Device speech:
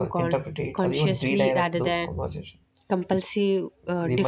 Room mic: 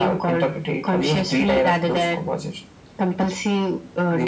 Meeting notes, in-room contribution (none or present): none